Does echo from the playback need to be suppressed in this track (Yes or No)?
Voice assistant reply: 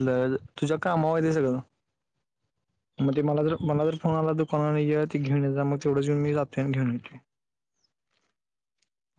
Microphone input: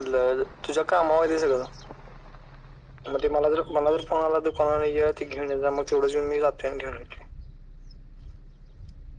Yes